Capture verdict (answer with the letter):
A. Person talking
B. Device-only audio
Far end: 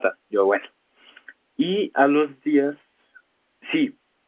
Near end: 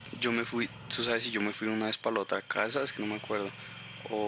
A